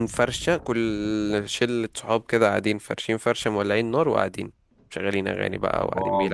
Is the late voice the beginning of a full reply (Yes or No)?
Yes